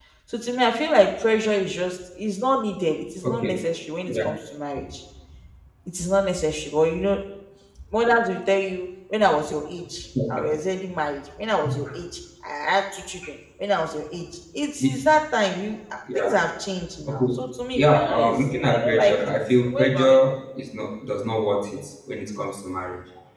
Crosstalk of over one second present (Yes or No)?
Yes